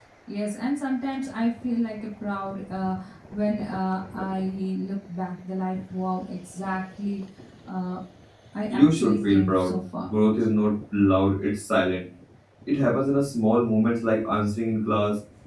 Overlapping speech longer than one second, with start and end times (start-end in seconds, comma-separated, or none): 8.7-10.1